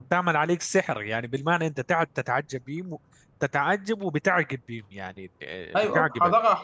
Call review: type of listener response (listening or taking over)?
taking over